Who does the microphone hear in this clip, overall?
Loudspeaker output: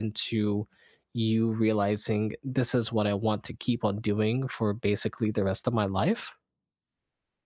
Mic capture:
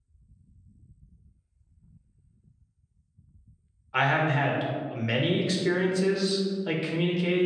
user only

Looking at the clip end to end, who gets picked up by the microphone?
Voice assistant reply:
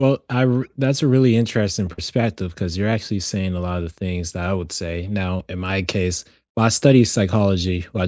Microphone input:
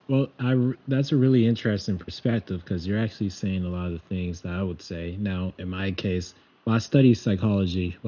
echo only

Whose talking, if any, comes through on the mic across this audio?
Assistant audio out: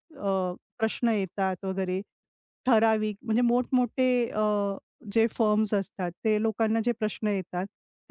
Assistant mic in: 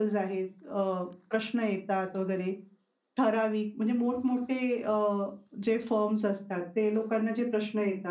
echo only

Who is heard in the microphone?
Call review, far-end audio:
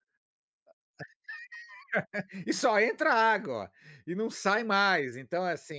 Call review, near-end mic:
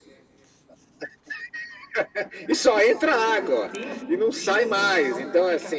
both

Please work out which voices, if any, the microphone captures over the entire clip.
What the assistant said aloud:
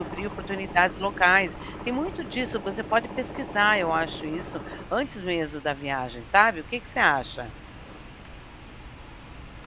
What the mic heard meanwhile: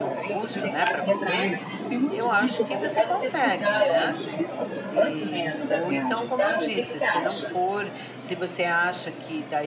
both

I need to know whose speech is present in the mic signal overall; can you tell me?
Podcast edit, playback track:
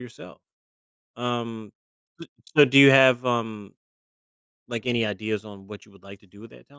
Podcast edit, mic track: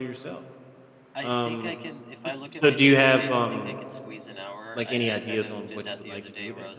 both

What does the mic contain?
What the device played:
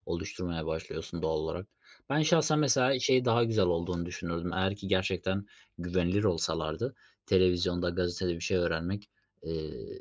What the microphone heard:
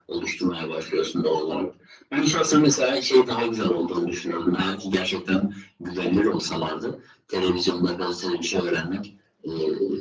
echo only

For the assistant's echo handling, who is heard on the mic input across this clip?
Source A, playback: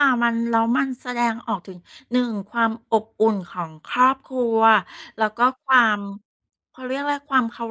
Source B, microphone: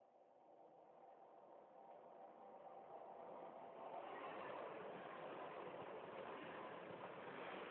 neither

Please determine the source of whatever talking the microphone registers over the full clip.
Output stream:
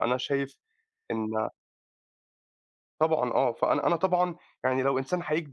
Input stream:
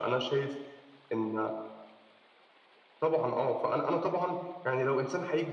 echo only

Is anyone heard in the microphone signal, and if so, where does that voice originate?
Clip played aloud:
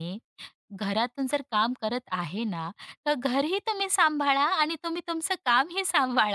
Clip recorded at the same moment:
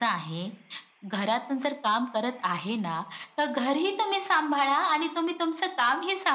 echo only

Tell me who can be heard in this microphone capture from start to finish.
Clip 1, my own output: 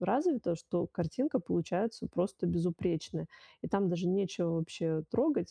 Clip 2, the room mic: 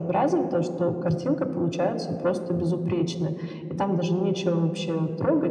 echo only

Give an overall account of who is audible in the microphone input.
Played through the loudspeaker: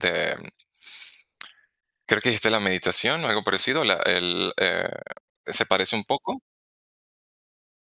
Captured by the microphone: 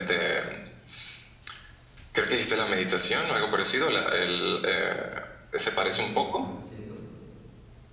both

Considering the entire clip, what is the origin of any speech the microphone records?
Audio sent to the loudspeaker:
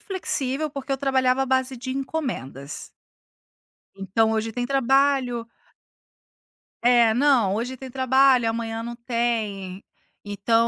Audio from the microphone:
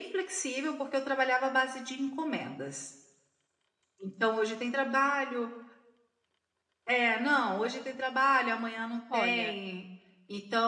both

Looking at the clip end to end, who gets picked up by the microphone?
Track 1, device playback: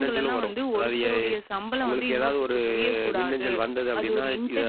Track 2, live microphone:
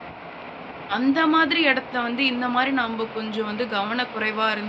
user only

